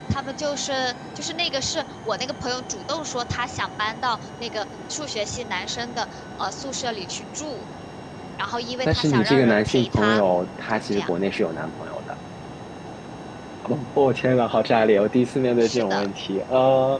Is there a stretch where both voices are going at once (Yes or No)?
Yes